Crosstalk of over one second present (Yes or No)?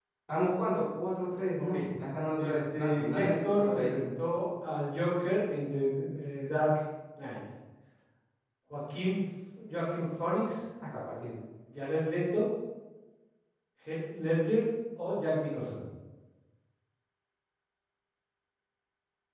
Yes